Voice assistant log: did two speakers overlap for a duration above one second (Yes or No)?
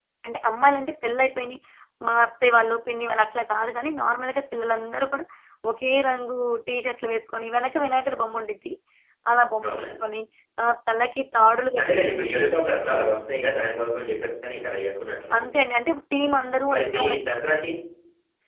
No